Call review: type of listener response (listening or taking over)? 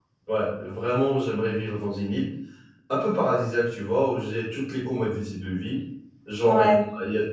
listening